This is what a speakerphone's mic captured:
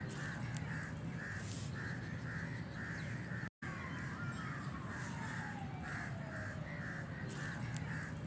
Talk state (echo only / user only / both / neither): neither